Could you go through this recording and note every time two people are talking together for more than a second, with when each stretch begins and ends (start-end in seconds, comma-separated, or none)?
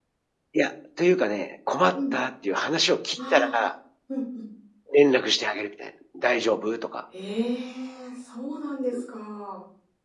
none